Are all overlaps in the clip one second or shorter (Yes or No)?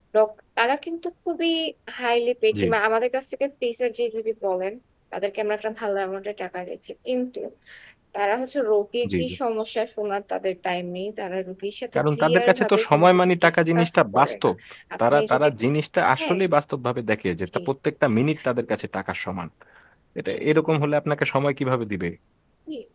No